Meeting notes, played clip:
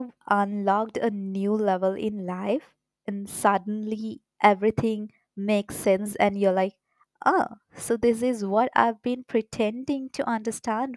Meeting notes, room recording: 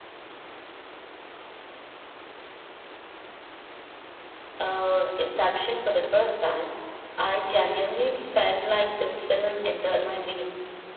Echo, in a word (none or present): none